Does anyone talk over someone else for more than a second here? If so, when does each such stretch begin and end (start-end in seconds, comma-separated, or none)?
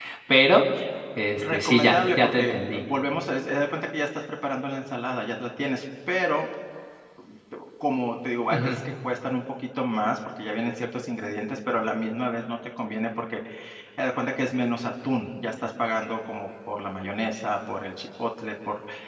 1.4-2.8